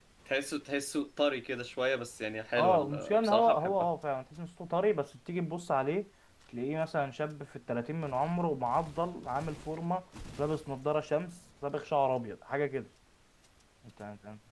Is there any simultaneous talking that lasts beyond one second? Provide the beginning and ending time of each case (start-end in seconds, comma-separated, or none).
2.6-3.9